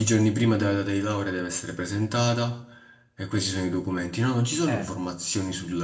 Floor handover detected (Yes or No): No